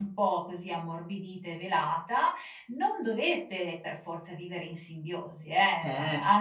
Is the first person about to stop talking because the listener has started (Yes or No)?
No